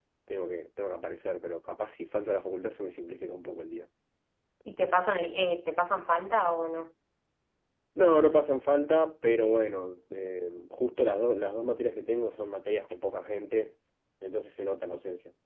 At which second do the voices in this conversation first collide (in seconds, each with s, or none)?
none